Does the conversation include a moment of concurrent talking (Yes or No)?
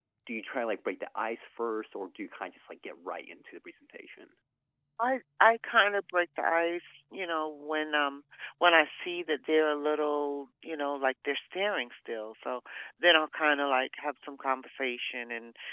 No